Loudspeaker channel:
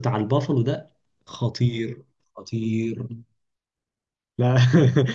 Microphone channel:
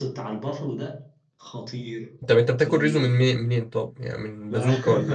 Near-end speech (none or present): present